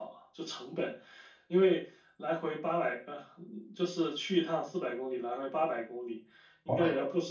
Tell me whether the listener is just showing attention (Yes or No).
Yes